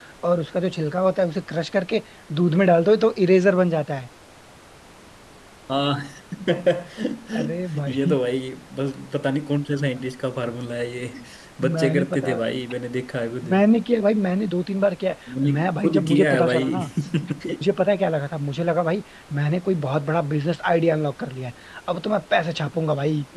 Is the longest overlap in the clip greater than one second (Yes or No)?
Yes